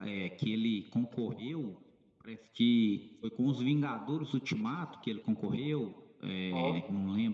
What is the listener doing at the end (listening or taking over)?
listening